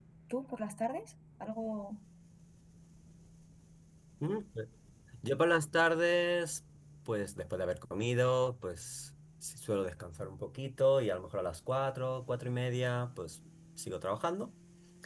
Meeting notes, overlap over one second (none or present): none